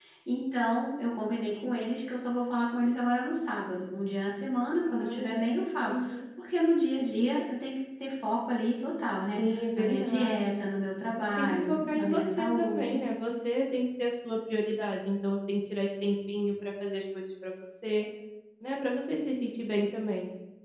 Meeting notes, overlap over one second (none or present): present